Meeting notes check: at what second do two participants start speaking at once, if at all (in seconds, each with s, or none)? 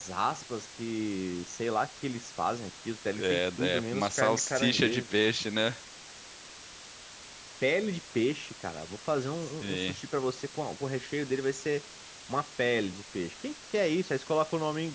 3.2 s